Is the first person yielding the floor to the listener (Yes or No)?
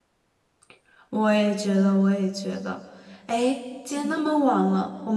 No